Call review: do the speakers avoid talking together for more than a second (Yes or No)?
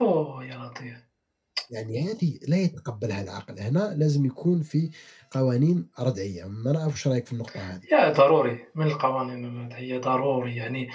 Yes